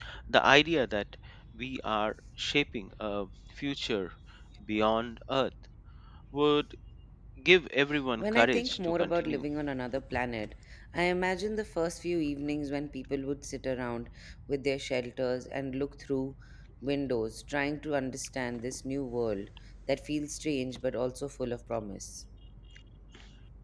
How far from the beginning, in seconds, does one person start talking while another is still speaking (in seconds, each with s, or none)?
8.2 s